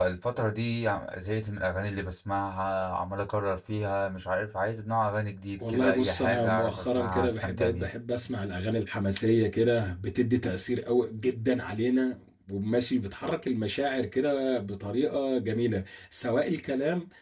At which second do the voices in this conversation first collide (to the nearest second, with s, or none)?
6 s